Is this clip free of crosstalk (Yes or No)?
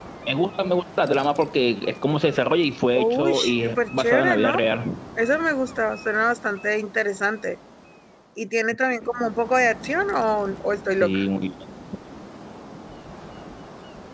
No